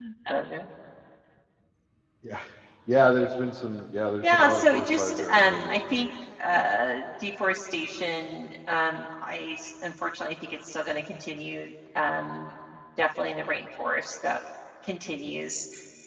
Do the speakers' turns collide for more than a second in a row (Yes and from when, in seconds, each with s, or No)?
Yes, from 4.2 s